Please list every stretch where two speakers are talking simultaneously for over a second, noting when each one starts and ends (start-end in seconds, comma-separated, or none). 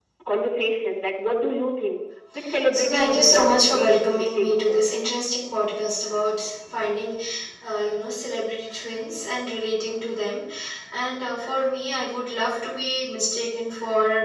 2.7-4.8